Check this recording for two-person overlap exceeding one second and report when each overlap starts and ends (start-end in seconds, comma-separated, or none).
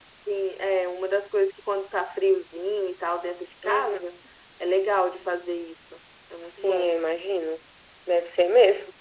none